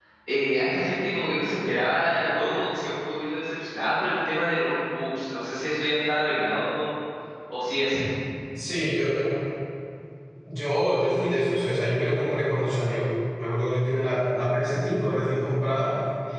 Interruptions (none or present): none